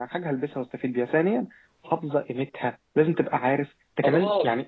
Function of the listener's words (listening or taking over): taking over